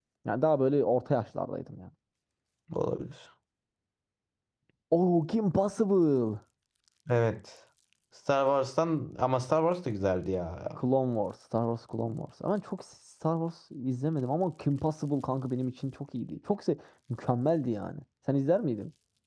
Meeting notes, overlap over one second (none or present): none